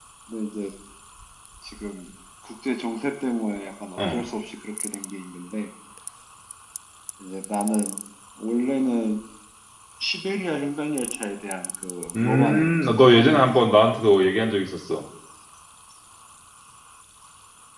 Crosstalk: present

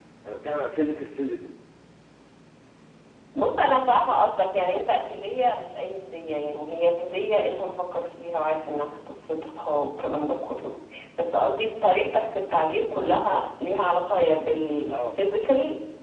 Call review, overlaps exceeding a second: none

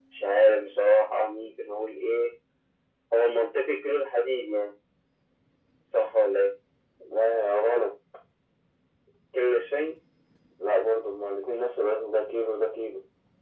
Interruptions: none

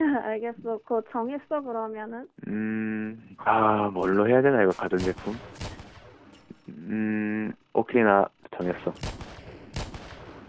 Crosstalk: none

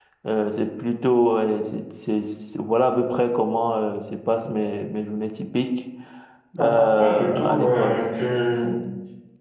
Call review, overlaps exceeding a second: present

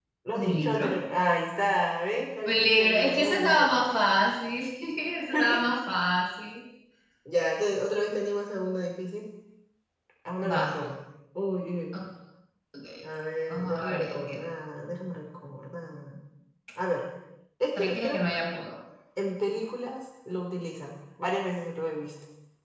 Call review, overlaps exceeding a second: present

